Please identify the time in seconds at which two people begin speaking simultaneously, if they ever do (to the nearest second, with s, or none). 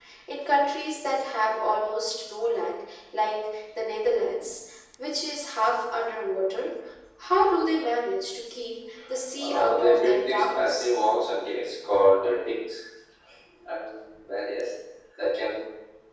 9 s